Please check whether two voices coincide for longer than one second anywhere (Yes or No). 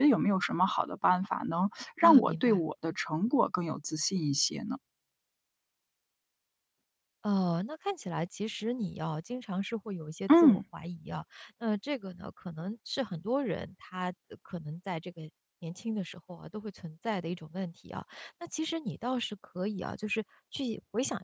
No